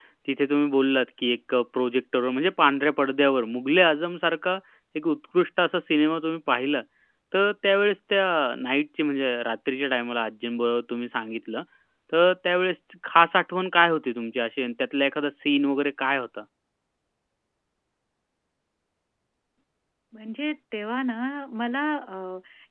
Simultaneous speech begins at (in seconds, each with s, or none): none